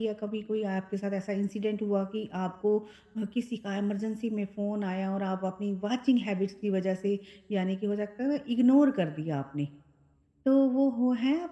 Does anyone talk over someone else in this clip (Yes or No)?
No